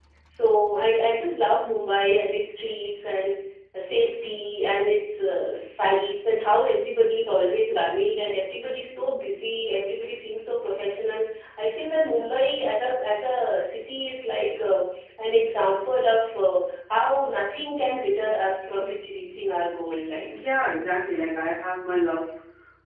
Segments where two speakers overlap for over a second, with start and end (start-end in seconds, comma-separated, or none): none